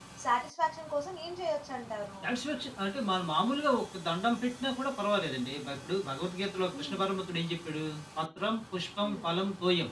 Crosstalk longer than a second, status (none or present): none